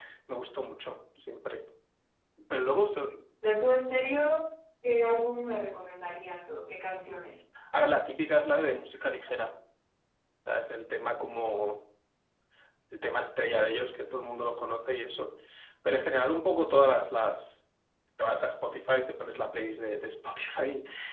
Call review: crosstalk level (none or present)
none